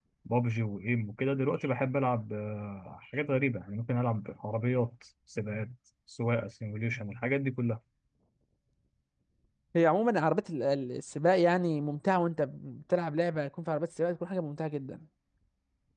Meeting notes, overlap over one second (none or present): none